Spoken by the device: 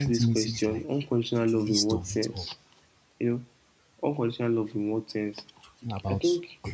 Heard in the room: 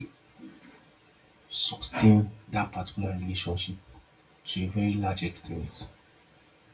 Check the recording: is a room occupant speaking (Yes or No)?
Yes